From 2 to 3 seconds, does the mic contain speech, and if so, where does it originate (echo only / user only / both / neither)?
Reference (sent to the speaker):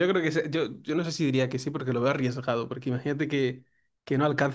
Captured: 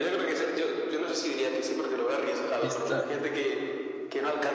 both